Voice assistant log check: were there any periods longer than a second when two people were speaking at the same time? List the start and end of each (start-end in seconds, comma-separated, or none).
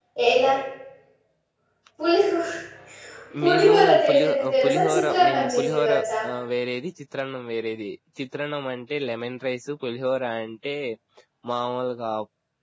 3.4-5.9